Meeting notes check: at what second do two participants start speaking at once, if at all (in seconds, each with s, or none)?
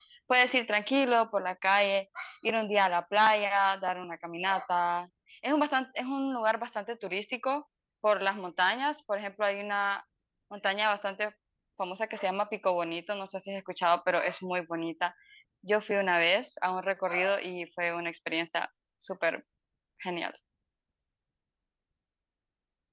none